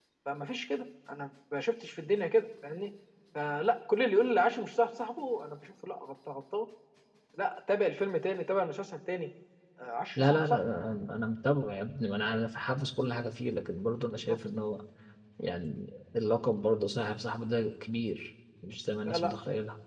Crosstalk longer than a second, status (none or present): none